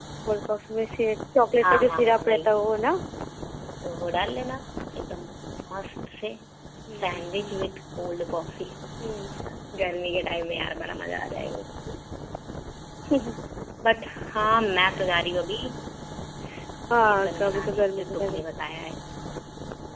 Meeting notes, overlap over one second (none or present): present